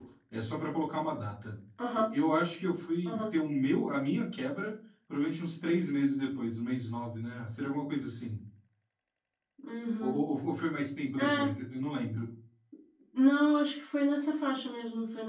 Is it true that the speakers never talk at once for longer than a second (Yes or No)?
Yes